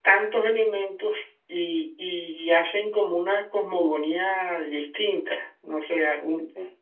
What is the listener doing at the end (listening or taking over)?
listening